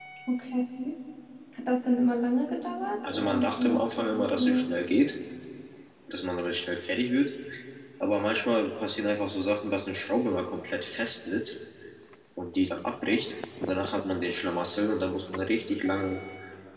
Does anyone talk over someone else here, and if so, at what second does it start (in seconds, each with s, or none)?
3.0 s